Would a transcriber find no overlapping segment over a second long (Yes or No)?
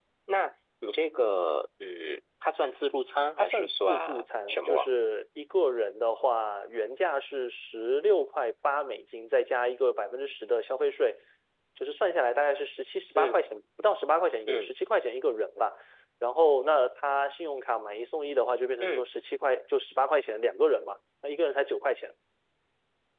No